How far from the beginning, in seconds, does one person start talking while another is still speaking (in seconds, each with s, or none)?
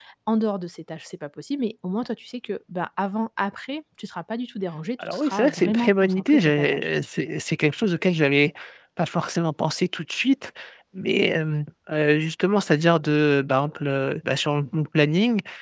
5.0 s